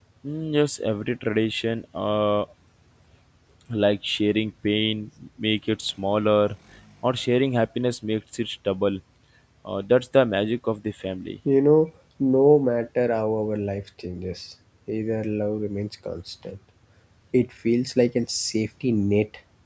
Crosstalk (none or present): none